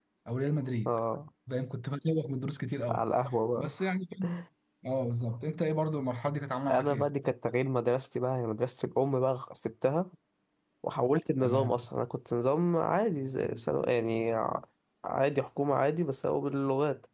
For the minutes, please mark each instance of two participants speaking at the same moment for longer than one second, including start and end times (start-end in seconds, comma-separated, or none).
none